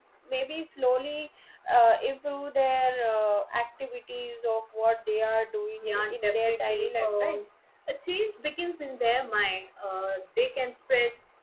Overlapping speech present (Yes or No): Yes